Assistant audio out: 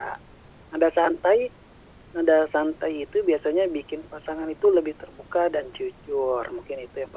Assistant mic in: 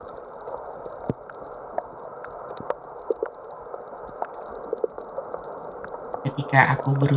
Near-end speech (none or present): present